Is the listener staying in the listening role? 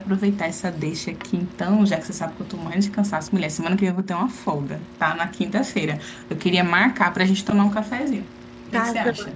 No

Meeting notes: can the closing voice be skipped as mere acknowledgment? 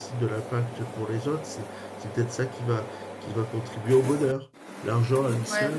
Yes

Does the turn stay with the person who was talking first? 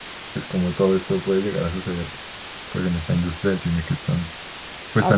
No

